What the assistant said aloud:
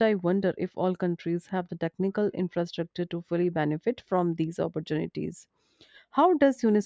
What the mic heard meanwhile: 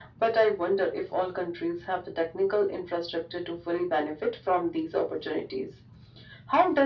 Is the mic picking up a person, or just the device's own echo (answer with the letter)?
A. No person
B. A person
A